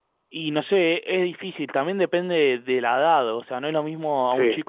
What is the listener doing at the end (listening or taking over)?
listening